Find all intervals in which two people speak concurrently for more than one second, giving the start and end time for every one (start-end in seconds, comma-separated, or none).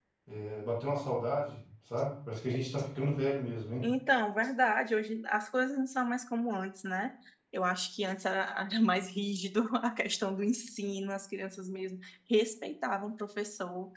none